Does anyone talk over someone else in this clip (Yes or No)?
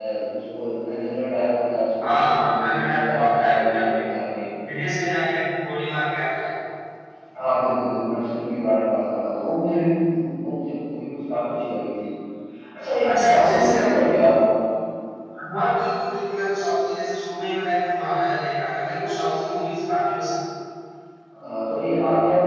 Yes